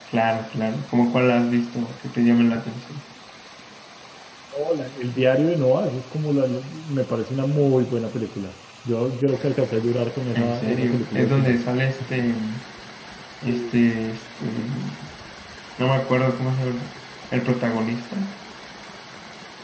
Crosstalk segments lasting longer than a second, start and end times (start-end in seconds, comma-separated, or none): 10.3-11.6